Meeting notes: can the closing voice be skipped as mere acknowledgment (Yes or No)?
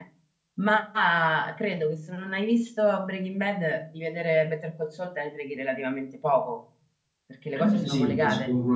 No